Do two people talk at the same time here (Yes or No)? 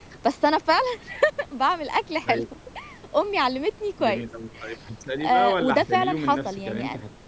Yes